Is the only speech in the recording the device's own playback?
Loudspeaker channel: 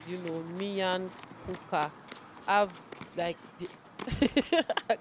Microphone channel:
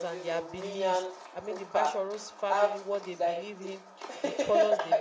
No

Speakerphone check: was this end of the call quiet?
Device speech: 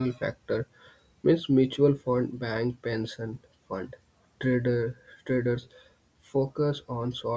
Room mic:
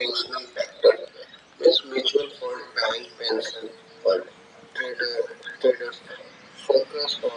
Yes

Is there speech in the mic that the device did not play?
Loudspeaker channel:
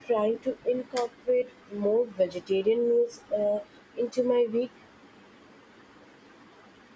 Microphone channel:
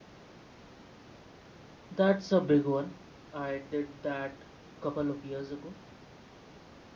Yes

